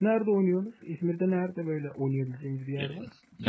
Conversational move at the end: taking over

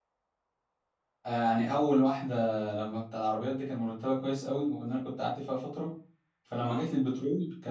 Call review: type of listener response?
listening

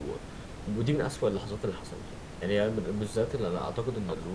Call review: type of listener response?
listening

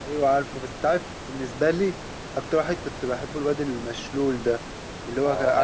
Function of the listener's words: listening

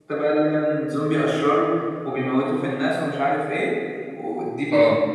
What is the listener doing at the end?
listening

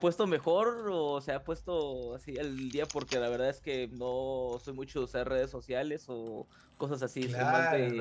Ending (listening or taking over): taking over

